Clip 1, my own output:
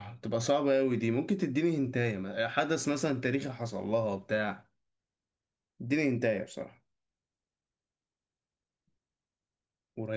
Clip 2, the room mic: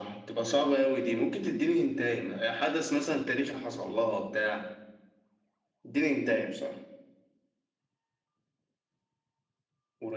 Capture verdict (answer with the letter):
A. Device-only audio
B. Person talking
A